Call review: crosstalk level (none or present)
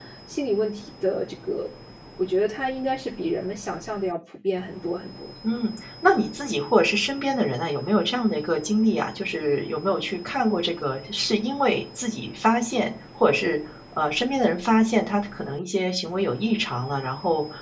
none